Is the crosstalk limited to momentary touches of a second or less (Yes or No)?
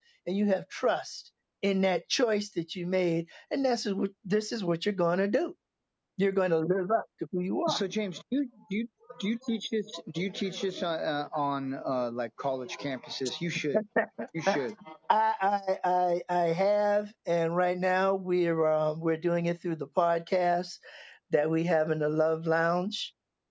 Yes